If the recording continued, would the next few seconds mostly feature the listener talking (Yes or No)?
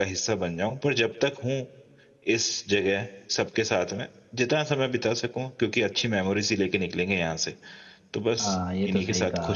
Yes